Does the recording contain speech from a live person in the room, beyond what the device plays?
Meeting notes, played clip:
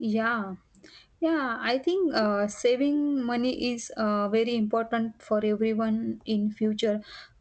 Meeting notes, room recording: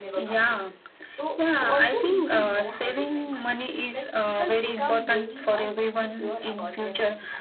Yes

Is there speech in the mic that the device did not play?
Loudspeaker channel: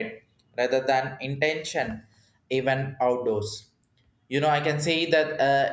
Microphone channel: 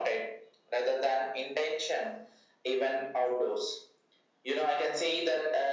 No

